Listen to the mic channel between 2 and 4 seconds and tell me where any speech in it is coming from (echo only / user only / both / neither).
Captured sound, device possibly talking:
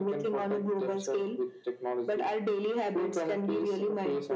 echo only